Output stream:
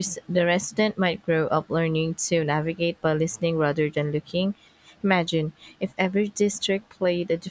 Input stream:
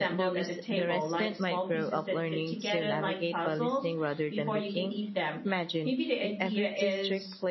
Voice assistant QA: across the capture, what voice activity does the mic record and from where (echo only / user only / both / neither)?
both